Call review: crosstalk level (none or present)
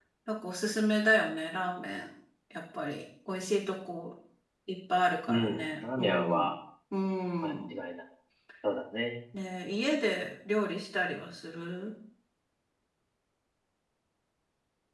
present